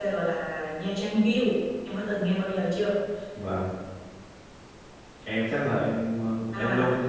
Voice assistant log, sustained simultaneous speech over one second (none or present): none